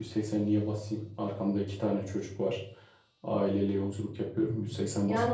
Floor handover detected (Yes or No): Yes